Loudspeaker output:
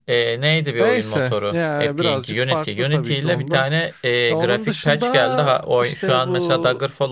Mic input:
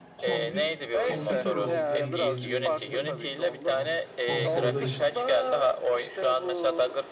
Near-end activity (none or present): present